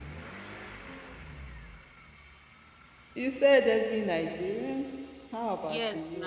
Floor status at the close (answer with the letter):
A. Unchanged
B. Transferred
B